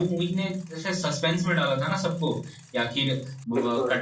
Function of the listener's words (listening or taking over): listening